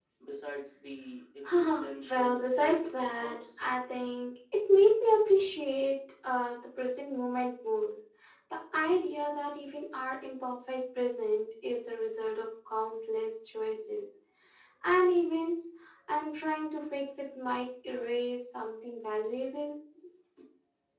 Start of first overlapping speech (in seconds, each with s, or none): 1.4 s